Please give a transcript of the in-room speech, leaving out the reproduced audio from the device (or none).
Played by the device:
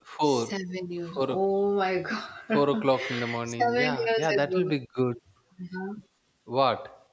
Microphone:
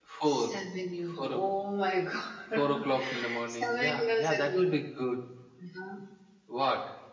none